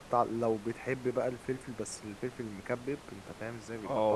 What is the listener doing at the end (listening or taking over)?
taking over